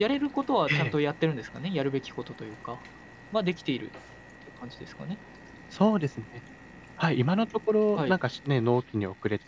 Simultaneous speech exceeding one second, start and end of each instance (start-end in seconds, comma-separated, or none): none